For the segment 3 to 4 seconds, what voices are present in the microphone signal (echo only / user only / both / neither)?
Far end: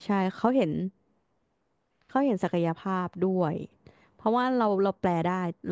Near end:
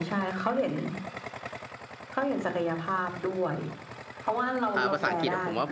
echo only